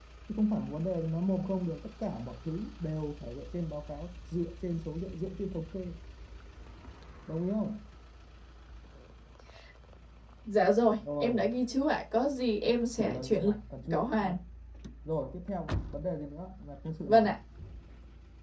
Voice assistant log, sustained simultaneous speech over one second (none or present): none